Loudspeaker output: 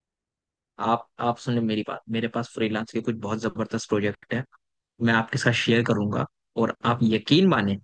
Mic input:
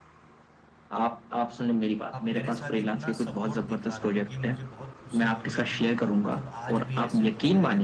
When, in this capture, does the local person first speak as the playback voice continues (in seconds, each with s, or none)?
2.1 s